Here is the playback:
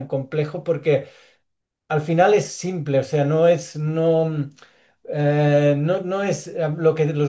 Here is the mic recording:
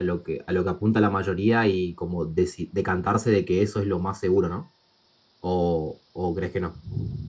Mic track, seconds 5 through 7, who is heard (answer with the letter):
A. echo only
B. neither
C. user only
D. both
C